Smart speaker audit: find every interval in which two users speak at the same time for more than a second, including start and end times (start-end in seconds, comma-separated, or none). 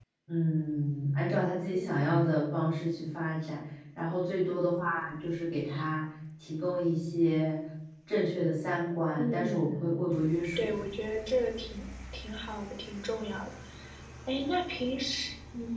9.2-10.7